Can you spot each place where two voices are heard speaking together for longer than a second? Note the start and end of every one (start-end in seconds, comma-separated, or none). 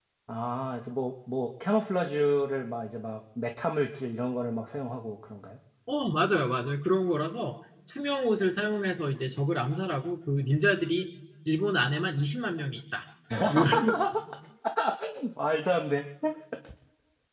none